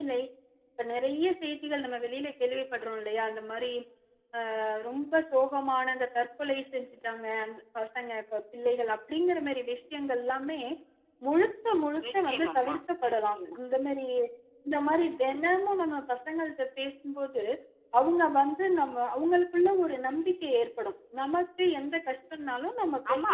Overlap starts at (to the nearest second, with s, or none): 12 s